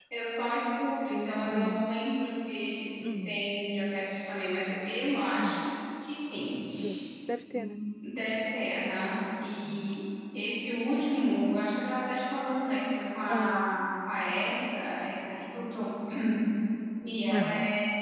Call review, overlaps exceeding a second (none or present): none